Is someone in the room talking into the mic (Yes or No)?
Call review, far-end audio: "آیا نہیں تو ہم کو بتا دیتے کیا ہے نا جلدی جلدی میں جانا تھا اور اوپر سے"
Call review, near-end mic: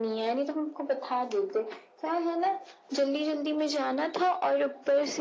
No